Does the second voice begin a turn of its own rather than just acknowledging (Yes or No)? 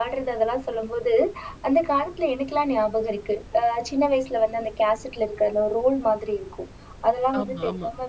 No